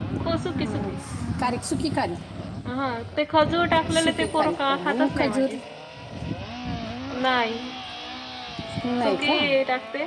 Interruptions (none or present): present